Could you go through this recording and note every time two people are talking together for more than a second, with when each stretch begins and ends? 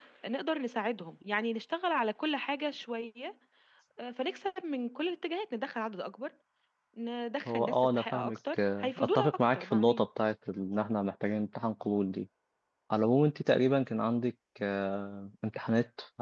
7.5-10.1

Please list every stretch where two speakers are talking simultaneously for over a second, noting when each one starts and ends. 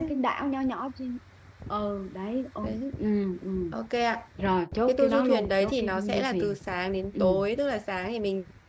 4.9-6.5

